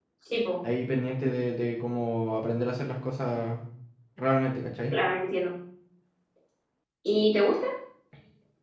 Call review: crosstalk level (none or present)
none